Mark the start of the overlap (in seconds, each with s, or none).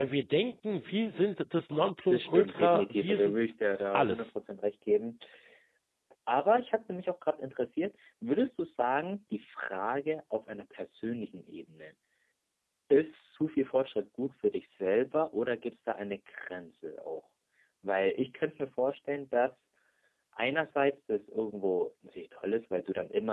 2.1 s